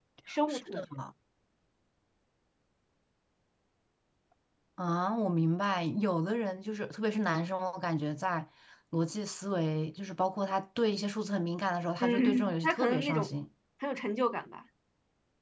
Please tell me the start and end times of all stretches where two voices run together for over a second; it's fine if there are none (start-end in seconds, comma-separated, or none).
12.0-13.3